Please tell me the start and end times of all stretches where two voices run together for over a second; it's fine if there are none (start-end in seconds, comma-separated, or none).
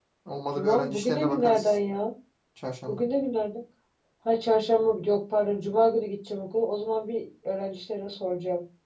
0.6-1.8